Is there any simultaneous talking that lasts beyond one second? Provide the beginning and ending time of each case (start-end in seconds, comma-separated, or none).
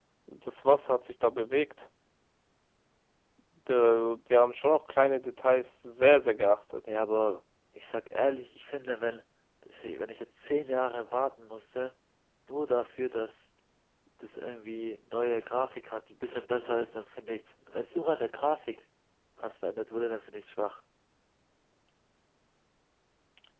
none